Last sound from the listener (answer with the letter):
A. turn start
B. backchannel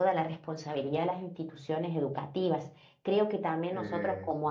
B